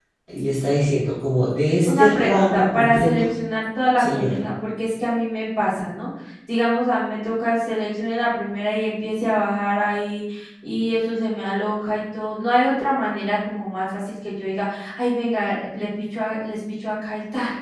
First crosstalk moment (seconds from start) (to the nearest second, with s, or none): 2 s